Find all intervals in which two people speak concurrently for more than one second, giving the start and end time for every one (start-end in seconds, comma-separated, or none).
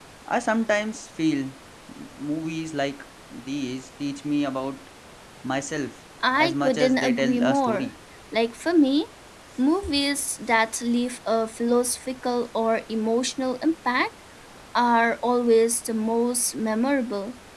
6.4-7.9